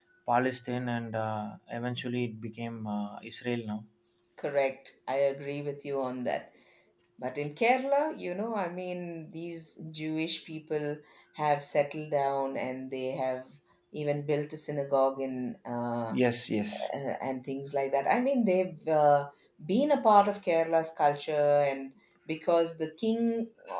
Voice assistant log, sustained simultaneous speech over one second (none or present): none